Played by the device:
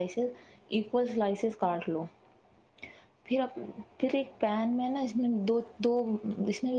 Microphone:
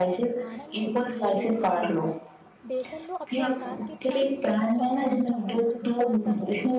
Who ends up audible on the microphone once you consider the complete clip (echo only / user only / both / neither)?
both